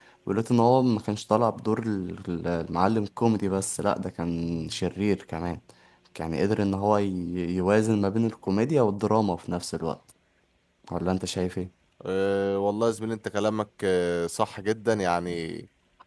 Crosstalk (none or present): none